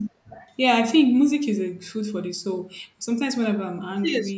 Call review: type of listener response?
listening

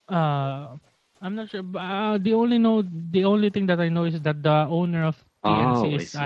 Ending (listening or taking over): taking over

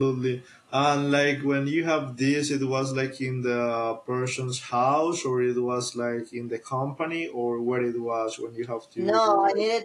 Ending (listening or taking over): taking over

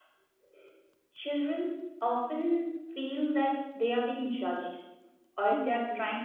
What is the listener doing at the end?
listening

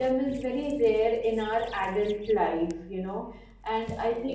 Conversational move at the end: listening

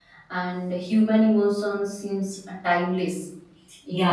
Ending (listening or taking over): taking over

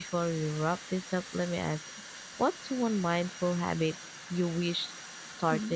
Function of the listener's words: taking over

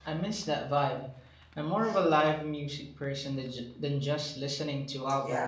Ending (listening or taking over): taking over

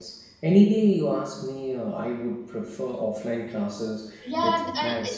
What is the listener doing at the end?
taking over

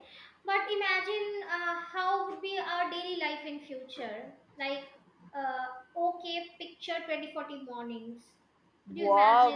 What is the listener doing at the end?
taking over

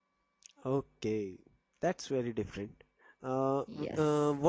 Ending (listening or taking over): listening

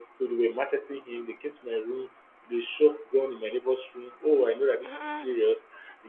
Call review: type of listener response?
listening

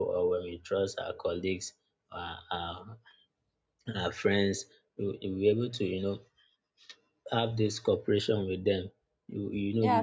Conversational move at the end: taking over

